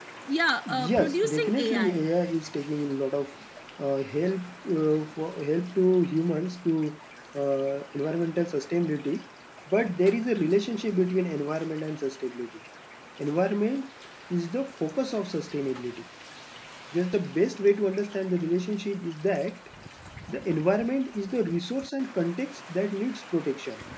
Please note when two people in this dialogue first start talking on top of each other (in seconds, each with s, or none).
0.7 s